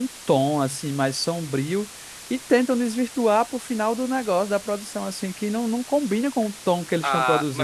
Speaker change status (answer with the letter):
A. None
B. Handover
B